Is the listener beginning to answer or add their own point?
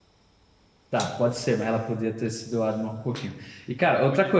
No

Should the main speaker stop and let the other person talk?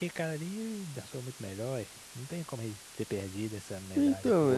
Yes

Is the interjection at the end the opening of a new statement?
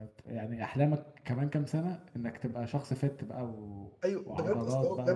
Yes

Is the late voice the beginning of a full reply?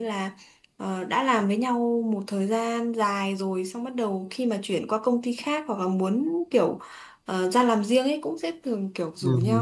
No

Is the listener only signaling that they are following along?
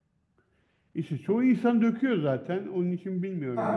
Yes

